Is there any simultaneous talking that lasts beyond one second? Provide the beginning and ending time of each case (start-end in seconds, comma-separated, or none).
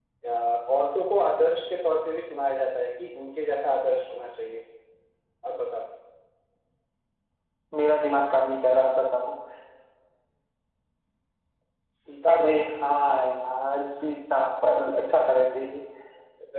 none